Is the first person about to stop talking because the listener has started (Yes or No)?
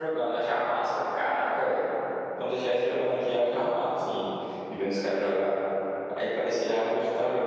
No